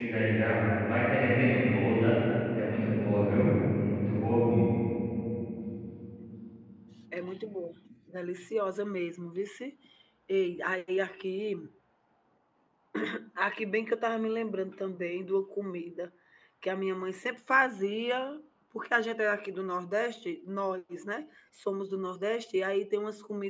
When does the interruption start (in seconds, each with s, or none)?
none